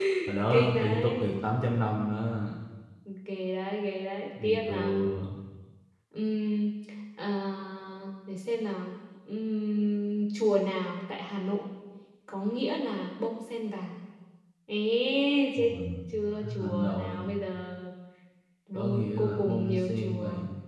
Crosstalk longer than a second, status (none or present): present